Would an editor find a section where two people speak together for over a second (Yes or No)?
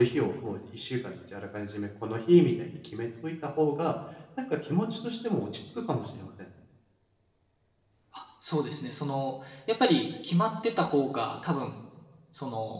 No